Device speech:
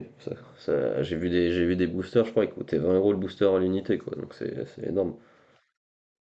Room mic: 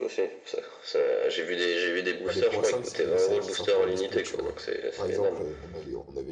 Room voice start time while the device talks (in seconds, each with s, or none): 2.2 s